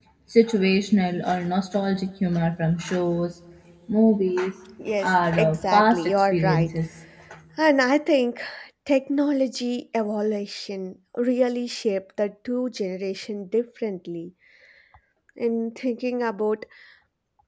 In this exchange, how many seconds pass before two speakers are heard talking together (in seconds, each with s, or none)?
5.0 s